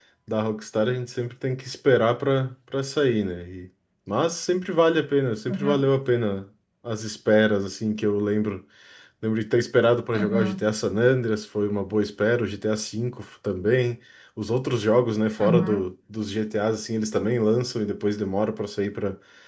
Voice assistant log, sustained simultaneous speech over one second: none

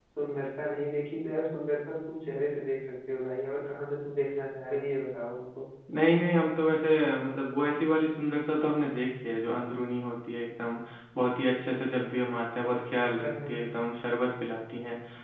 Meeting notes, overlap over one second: none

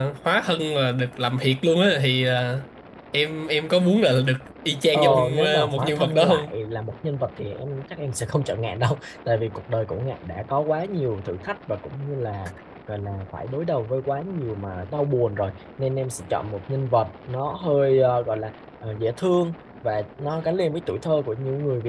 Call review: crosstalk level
present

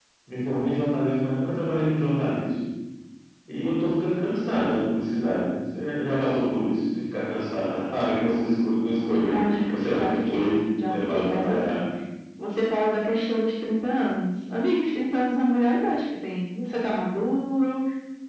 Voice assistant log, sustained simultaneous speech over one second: present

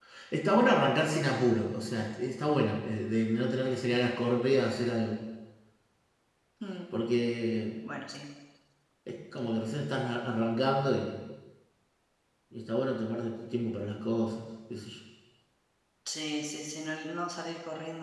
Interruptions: none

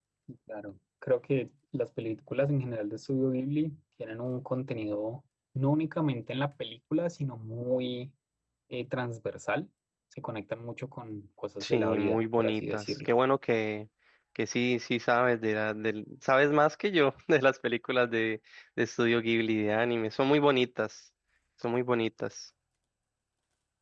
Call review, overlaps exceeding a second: present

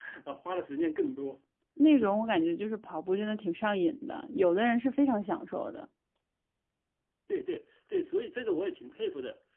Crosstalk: none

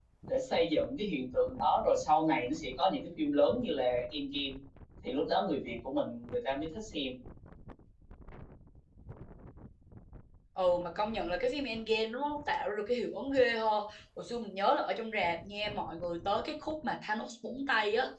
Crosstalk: none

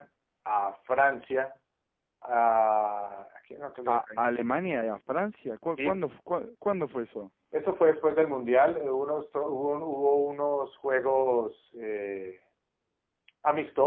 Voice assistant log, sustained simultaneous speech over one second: none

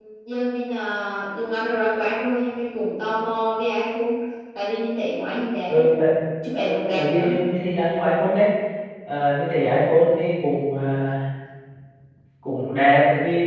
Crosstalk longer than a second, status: none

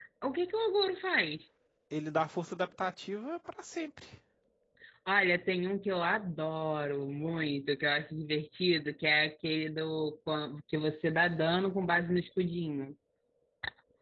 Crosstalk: none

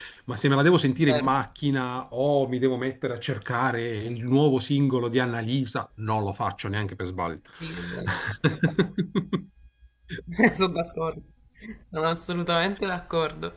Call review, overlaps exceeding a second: none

